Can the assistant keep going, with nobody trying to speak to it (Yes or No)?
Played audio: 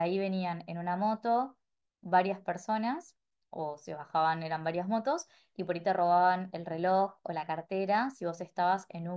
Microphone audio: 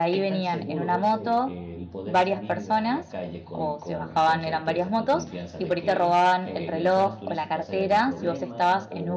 No